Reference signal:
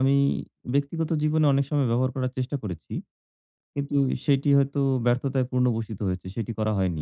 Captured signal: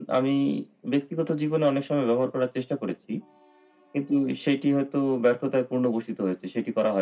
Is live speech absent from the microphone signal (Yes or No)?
Yes